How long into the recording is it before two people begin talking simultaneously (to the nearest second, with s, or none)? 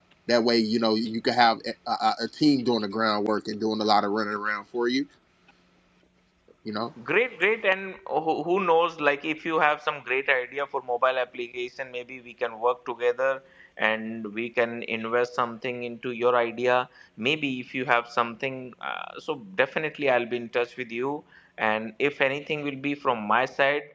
none